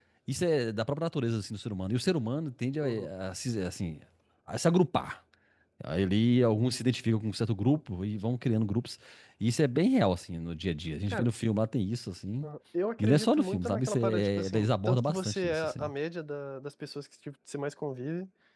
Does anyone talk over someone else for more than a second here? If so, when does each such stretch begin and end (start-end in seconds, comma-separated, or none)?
13.0-15.9